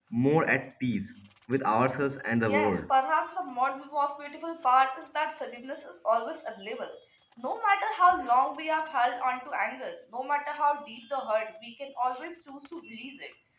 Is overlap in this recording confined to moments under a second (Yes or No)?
Yes